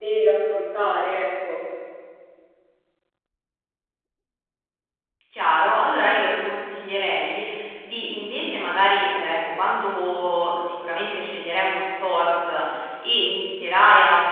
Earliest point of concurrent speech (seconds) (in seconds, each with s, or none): none